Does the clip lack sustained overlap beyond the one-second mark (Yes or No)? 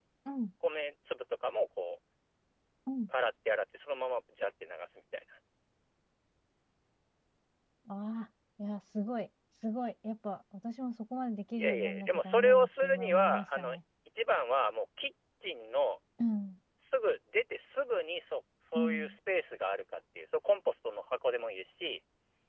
No